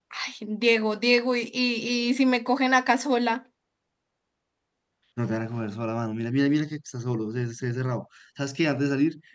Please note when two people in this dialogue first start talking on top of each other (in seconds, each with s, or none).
none